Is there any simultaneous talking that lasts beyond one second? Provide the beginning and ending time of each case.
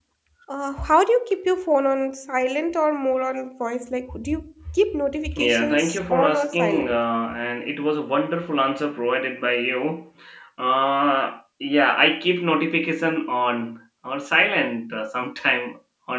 5.4-7.0

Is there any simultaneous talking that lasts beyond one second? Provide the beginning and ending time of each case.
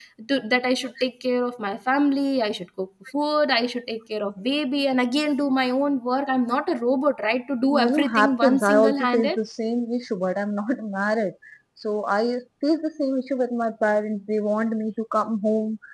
7.8-9.4

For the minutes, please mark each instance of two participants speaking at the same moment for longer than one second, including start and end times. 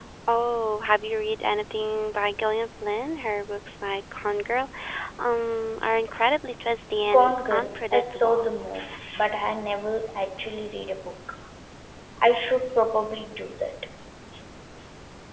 7.1-8.5

